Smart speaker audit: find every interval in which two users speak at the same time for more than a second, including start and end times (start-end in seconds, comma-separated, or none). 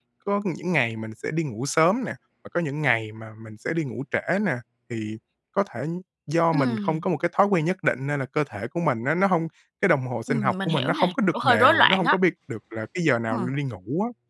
10.3-12.2